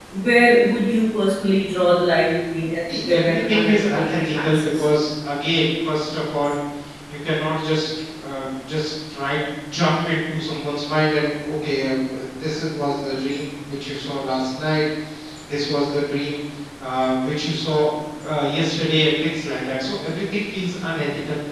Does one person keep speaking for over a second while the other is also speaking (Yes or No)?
Yes